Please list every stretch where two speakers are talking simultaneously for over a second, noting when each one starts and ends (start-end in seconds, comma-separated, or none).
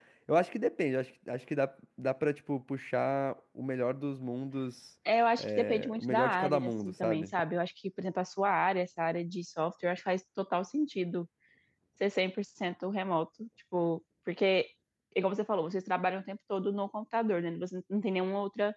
5.4-7.3